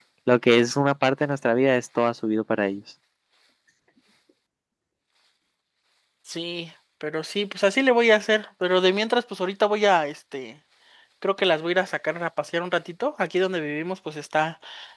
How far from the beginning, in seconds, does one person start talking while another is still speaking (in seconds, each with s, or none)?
none